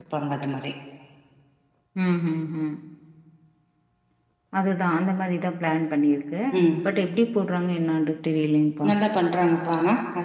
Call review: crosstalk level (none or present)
none